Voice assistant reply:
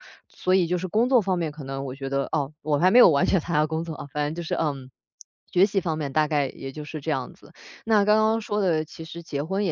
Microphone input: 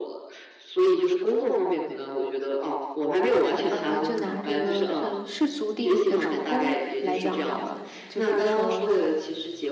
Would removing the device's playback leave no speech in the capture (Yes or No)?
No